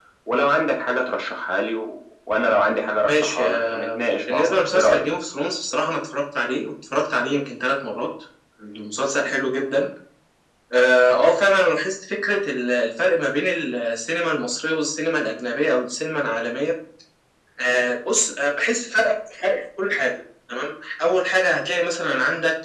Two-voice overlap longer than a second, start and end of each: 3.1-5.0

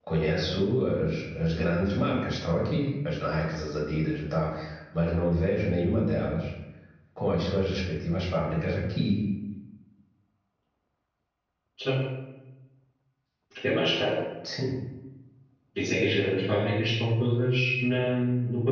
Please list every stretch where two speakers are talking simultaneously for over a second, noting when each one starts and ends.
none

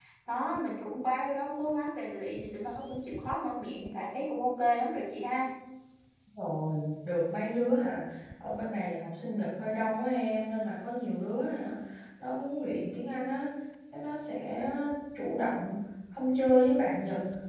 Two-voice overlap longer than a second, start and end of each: none

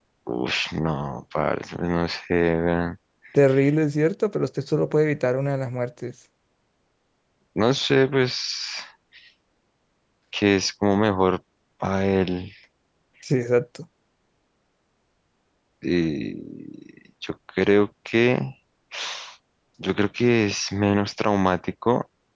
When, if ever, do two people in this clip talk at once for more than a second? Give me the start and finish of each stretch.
none

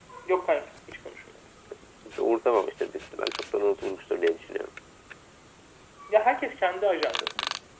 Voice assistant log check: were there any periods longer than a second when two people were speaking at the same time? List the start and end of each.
none

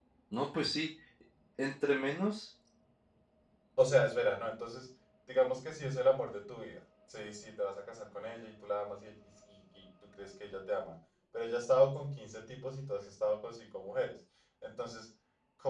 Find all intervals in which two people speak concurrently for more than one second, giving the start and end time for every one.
none

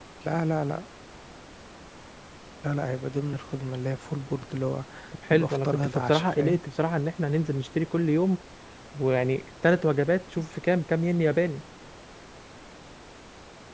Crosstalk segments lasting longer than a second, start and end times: 5.3-6.6

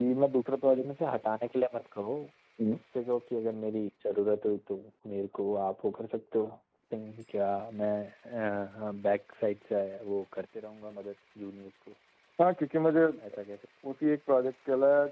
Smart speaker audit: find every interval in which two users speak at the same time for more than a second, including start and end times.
none

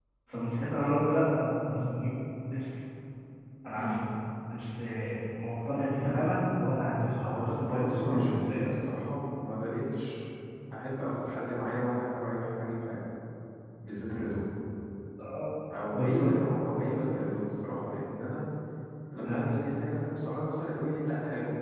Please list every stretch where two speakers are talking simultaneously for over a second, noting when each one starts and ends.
7.1-8.6

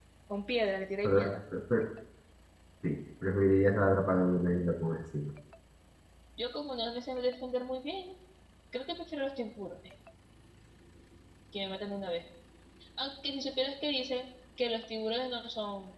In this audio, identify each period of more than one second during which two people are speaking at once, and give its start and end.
none

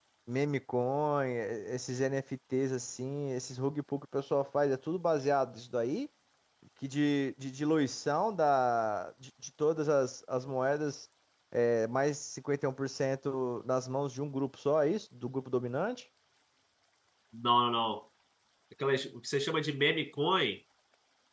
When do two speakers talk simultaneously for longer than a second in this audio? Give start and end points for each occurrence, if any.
none

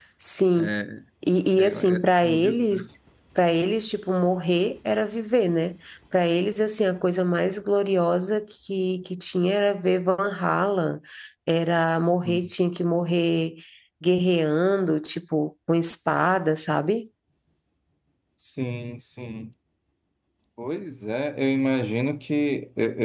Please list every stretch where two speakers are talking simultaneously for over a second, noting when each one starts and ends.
1.6-2.9

